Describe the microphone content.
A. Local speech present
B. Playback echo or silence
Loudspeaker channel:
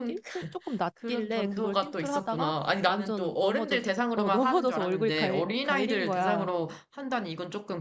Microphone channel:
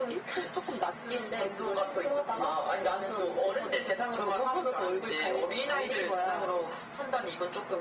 B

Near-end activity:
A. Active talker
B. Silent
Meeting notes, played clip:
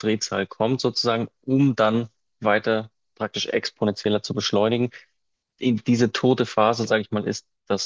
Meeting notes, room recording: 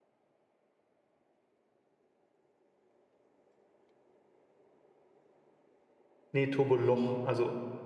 A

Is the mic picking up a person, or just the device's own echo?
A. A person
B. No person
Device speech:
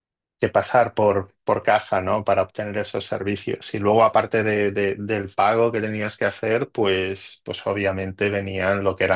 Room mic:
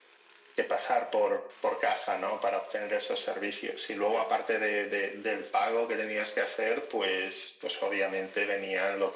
B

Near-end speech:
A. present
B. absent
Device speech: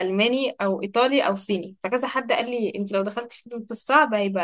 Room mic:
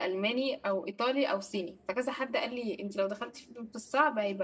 B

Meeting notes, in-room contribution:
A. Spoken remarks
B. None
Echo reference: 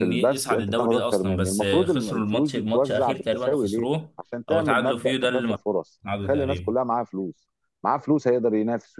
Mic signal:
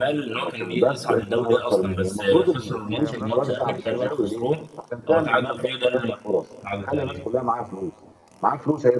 A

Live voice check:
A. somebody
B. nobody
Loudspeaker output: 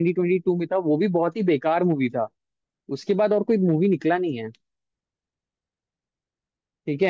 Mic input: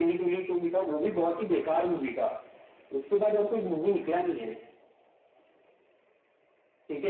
B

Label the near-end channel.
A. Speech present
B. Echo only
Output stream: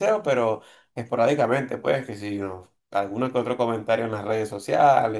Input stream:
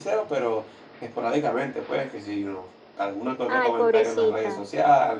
A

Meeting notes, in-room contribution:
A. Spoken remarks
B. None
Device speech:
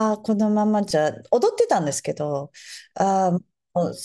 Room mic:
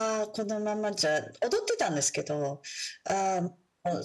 B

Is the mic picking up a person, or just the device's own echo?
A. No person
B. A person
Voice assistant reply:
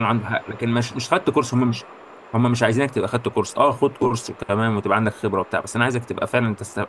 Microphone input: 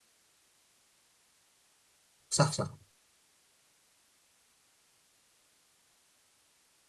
B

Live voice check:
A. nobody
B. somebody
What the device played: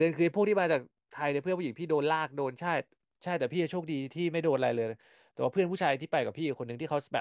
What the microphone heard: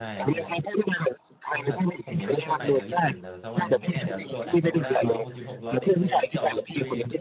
B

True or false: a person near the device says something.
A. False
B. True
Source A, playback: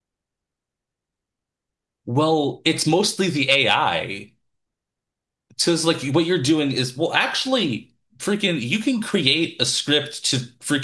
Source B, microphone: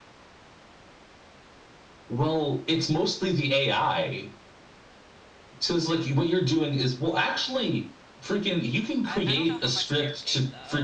B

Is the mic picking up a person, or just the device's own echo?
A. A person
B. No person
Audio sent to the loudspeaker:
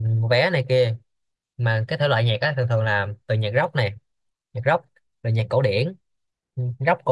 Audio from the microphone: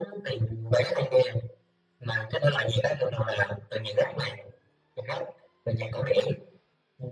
B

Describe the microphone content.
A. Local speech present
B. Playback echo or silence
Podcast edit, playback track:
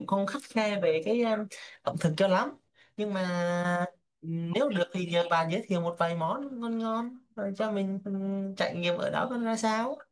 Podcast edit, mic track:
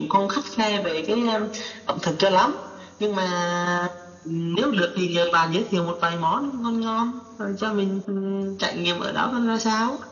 B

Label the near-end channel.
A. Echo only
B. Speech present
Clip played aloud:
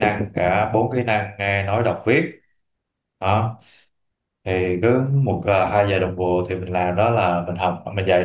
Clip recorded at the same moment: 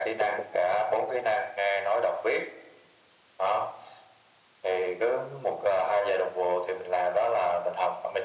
A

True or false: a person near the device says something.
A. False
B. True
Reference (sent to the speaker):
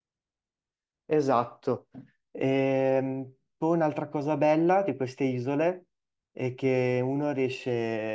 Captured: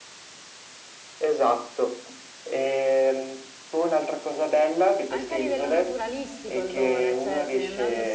B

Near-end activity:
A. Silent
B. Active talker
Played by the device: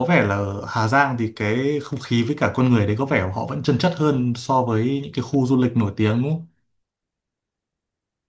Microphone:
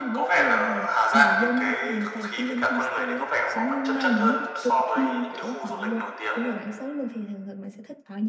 B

